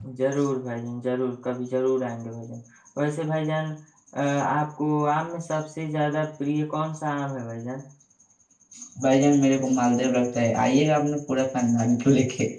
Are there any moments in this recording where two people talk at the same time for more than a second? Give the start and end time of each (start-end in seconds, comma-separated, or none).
none